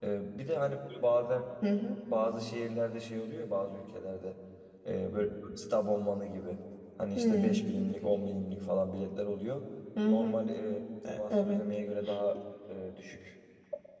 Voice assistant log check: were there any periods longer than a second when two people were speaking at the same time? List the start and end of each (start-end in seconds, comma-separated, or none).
none